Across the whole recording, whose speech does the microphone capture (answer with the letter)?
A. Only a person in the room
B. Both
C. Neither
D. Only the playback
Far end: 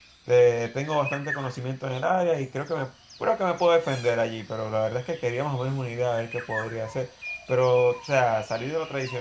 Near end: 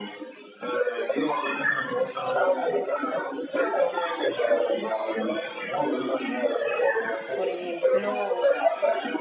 B